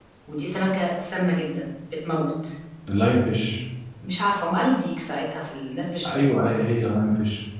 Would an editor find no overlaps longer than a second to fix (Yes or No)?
Yes